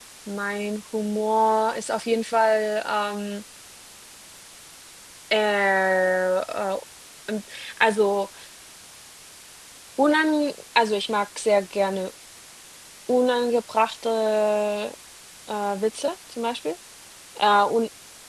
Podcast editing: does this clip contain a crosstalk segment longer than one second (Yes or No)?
No